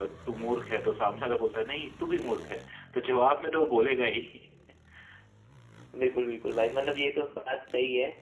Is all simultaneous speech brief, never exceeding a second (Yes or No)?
Yes